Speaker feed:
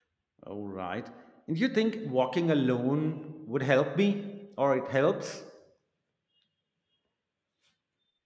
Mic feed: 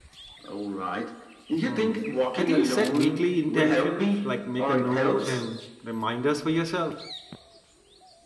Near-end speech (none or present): present